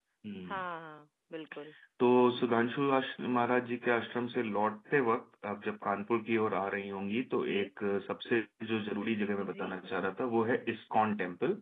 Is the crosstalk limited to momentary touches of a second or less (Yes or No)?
Yes